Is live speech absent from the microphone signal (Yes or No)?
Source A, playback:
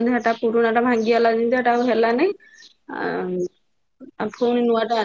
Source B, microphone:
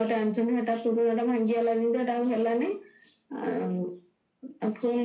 Yes